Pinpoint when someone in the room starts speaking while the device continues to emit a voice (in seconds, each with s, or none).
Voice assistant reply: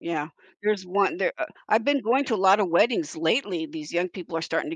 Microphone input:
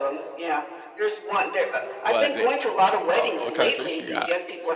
2.0 s